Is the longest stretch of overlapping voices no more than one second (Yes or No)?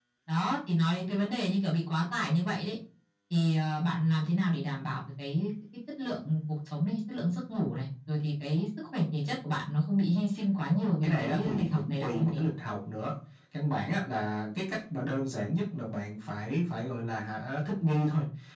No